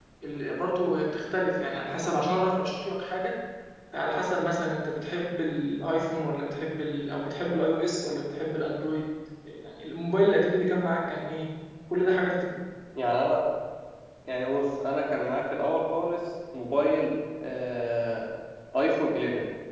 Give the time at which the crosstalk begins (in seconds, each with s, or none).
none